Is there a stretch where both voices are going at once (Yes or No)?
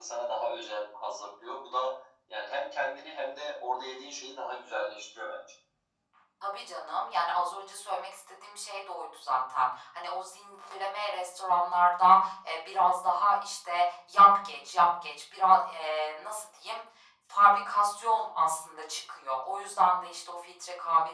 No